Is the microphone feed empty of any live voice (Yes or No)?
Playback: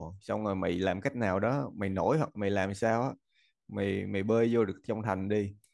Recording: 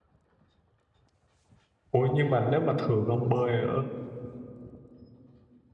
No